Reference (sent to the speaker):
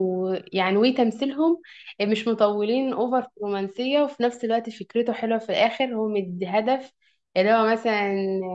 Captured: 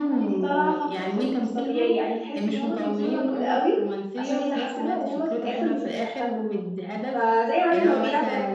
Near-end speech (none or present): present